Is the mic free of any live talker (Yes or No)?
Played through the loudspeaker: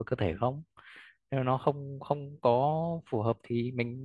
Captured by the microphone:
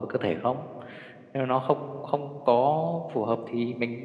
Yes